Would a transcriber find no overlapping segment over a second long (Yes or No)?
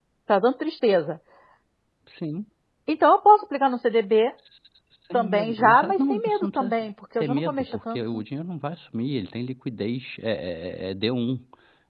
No